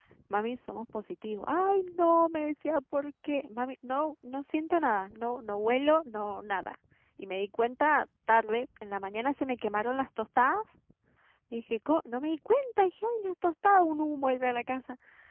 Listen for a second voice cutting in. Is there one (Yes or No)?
No